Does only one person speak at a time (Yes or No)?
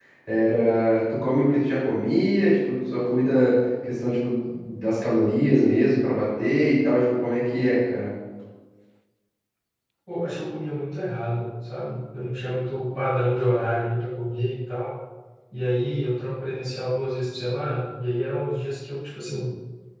Yes